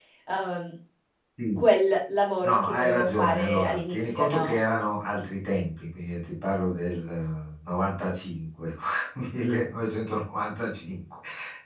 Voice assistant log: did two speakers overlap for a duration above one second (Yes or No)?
Yes